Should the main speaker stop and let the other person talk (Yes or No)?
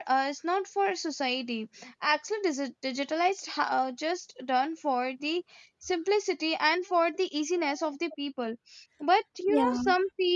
No